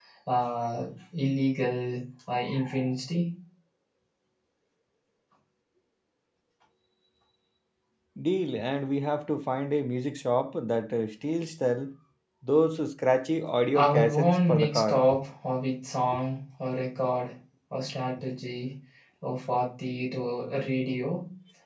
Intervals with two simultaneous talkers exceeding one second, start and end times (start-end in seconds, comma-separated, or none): 13.7-15.0